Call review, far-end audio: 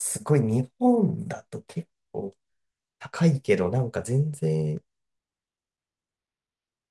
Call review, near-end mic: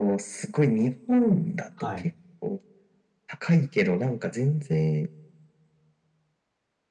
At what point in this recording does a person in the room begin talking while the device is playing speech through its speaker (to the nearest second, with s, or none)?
2 s